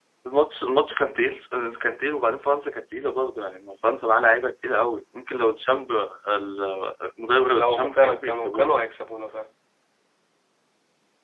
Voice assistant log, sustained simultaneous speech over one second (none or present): present